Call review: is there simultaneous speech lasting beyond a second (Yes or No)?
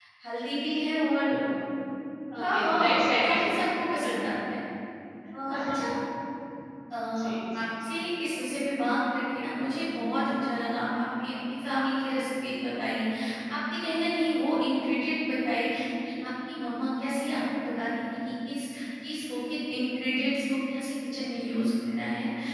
Yes